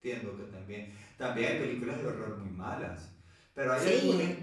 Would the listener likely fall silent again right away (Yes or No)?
Yes